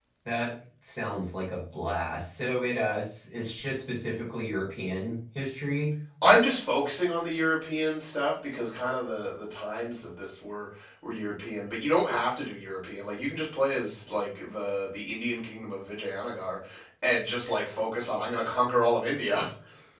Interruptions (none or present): none